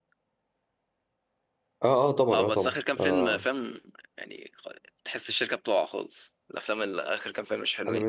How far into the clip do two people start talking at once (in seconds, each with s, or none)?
2.2 s